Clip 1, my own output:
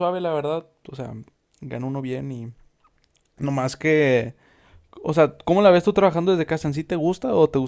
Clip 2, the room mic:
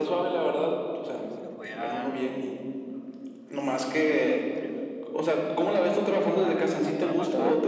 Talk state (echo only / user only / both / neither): both